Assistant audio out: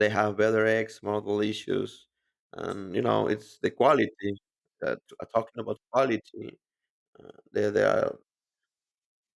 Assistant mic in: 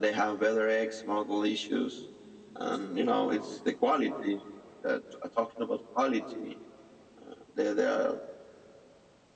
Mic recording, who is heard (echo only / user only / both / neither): echo only